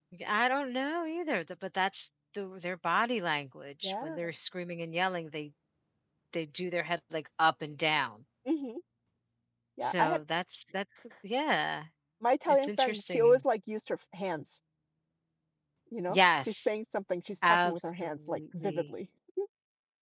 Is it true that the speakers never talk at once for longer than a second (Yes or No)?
No